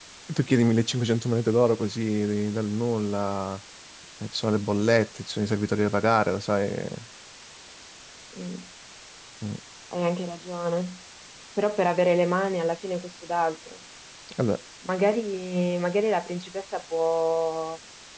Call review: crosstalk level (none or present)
none